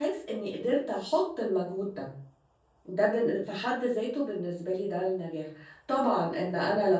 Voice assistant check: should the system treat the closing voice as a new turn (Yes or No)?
No